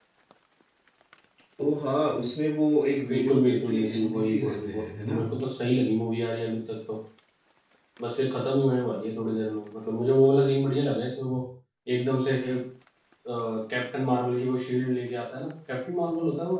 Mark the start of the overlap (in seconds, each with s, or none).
3.0 s